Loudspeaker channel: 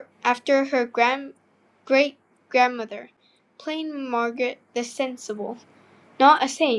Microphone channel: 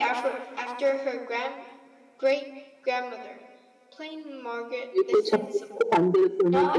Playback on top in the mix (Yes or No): No